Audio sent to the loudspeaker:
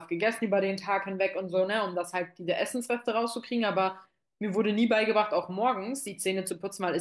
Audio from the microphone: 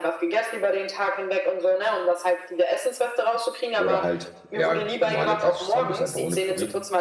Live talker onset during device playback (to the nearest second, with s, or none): 4 s